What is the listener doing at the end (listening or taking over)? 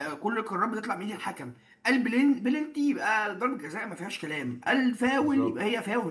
listening